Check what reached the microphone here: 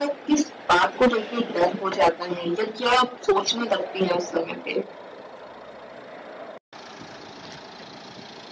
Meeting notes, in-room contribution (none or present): none